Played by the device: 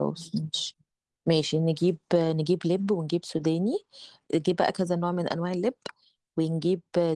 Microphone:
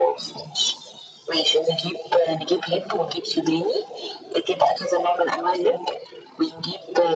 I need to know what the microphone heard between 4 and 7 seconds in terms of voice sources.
echo only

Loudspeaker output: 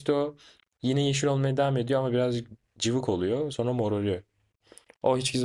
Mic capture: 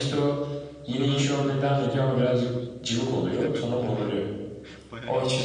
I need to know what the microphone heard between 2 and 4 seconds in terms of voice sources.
both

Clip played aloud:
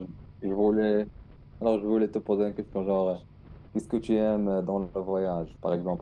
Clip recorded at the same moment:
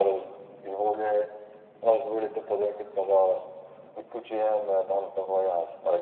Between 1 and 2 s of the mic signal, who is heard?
echo only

